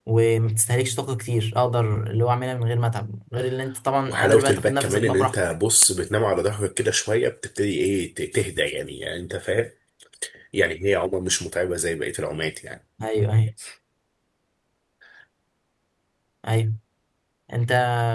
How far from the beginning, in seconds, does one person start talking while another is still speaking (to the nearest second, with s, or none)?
4 s